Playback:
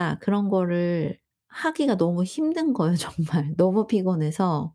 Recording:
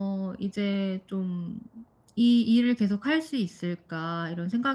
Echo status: none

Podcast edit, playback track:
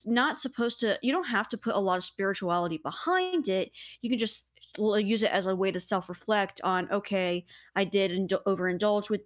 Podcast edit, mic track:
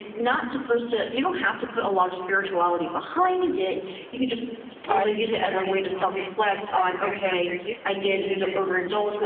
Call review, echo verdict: present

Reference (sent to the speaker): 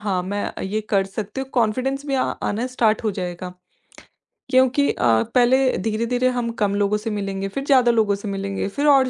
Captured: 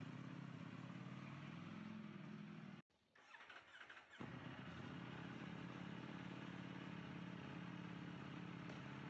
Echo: none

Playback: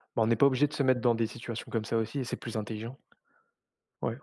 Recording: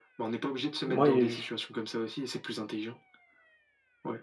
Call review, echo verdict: present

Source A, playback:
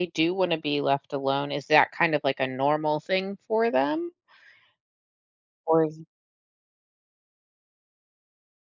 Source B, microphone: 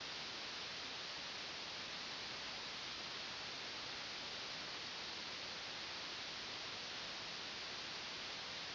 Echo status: none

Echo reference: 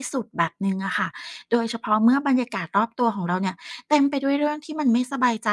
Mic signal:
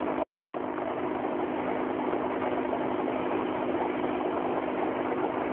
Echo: none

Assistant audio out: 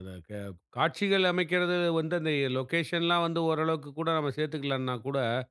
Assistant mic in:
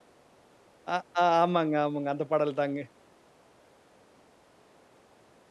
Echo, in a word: none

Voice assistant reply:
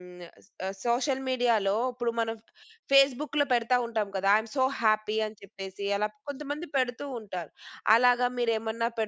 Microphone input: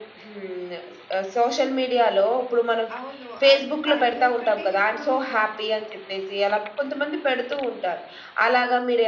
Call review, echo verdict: present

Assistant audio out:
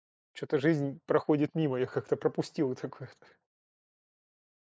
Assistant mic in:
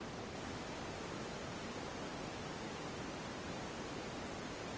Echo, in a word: none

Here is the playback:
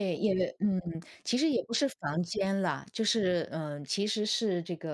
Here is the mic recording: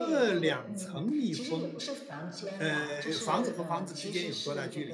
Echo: present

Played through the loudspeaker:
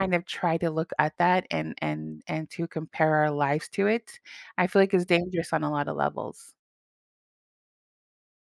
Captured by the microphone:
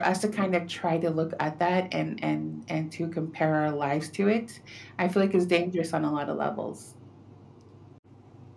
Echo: present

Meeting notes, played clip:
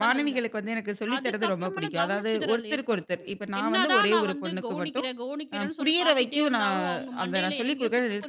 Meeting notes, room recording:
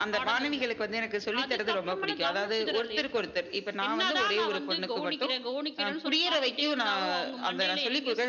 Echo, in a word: present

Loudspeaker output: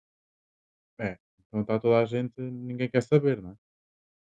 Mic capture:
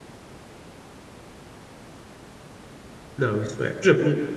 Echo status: none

